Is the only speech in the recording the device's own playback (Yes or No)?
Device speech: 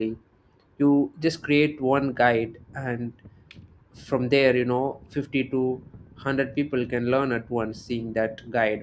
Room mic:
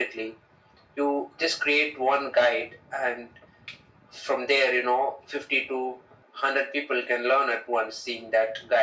Yes